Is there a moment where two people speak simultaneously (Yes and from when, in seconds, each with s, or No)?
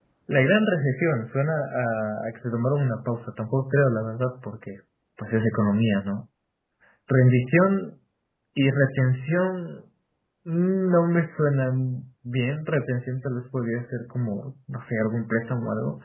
No